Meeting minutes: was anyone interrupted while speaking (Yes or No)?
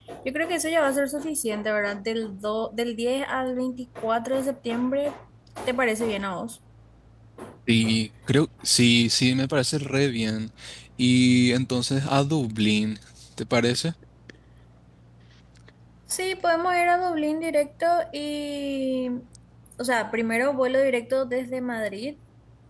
No